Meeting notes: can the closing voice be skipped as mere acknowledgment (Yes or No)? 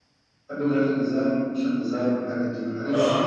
No